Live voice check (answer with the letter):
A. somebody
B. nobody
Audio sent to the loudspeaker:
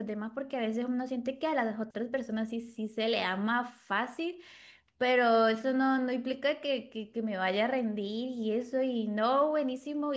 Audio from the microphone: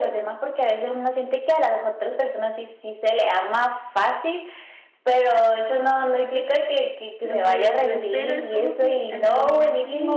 A